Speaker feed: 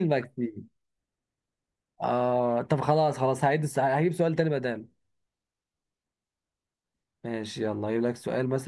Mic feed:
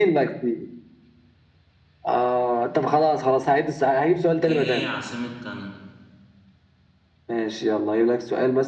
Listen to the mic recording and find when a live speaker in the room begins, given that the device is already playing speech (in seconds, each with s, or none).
4.5 s